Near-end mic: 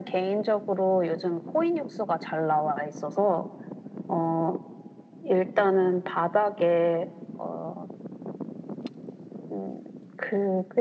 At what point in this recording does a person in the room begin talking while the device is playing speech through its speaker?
none

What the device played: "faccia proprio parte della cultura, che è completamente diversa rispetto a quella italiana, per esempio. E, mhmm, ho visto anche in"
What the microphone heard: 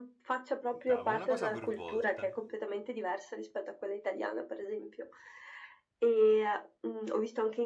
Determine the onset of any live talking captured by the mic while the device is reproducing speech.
0.7 s

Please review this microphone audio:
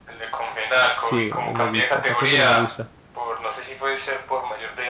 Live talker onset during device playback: 1.0 s

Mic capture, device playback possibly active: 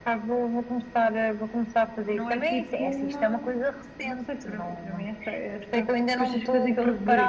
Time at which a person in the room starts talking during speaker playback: 2.1 s

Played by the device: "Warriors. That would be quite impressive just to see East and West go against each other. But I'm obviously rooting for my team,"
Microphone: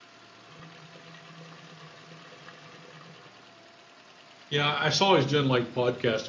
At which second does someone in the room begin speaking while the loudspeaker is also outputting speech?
4.5 s

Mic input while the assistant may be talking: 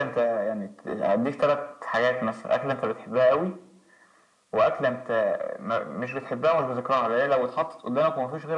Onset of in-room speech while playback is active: none

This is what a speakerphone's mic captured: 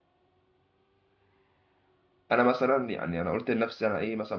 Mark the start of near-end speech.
2.3 s

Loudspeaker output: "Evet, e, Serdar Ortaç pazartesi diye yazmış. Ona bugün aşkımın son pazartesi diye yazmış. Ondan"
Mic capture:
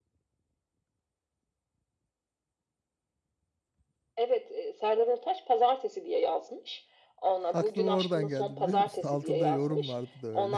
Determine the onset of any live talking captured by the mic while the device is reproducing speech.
7.5 s

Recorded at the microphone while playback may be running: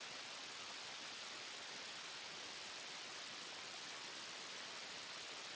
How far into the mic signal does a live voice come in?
none

